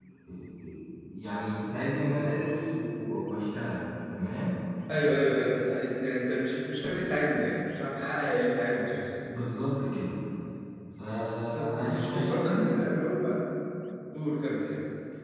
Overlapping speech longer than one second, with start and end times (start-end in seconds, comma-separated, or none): 11.5-12.8